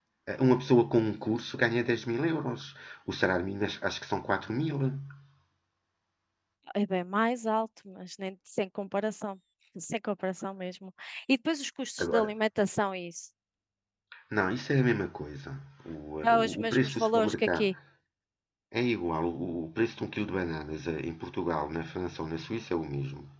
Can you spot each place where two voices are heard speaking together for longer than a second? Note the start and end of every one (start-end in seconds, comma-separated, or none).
16.3-17.7